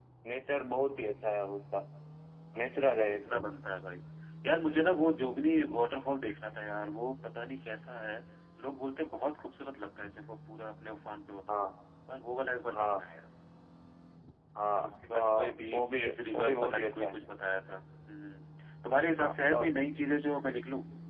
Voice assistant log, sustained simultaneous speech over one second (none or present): present